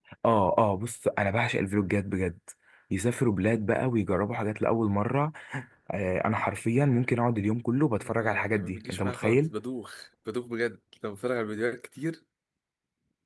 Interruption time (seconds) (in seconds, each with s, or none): 8.0 s